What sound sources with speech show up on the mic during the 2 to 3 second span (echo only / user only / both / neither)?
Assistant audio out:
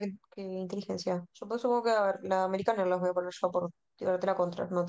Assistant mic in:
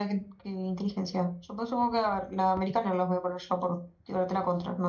echo only